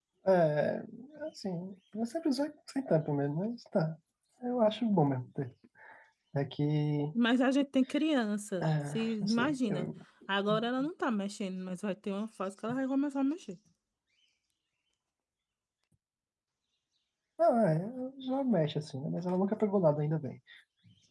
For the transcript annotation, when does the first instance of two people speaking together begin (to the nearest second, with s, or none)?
9 s